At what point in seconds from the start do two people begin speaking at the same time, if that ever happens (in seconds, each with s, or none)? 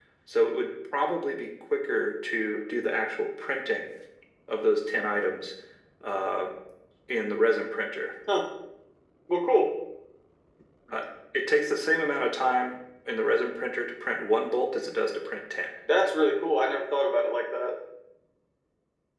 none